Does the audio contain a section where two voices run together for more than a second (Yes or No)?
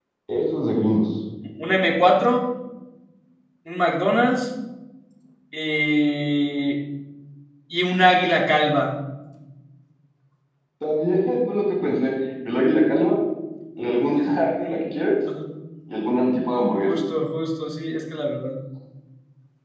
No